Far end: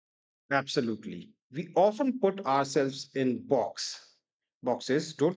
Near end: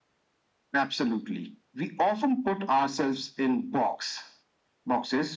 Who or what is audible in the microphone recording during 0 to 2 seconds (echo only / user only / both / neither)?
echo only